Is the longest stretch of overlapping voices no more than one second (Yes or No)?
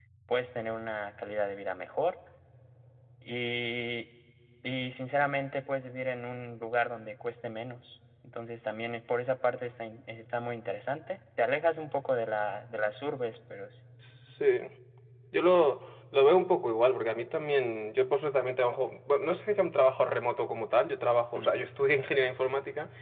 Yes